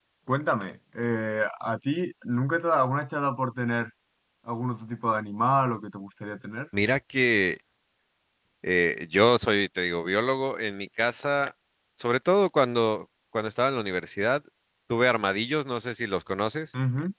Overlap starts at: none

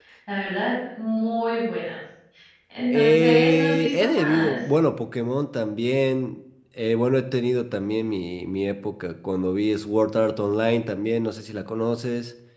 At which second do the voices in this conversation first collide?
2.9 s

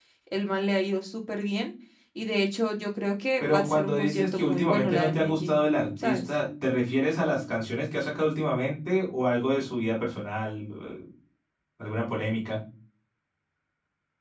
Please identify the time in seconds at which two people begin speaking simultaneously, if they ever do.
3.4 s

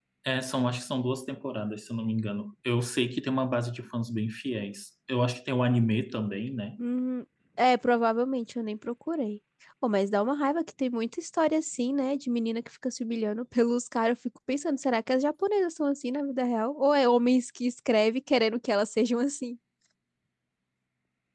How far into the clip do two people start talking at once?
none

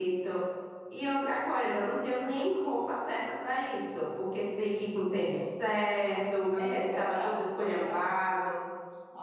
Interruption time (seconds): 6.6 s

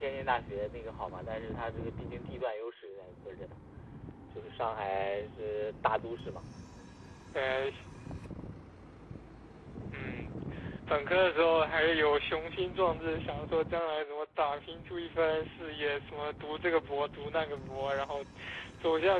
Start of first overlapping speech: none

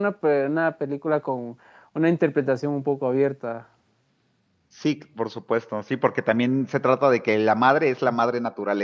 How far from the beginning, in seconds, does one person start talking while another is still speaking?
none

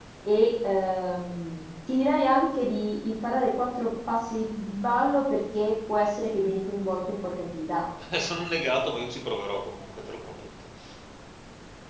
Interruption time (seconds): none

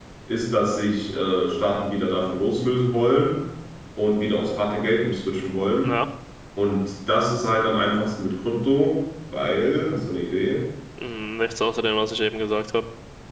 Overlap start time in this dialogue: none

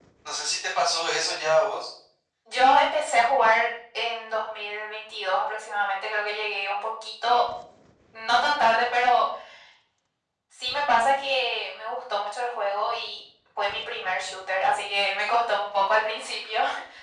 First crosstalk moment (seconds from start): none

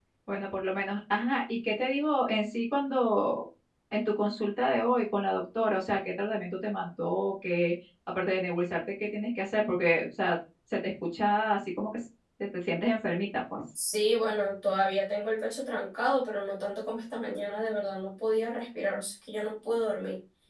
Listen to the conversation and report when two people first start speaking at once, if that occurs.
none

